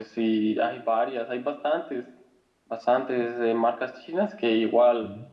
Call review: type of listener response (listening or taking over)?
listening